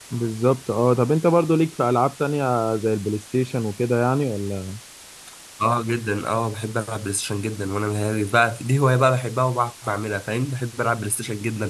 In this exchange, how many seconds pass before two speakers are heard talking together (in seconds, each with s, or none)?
none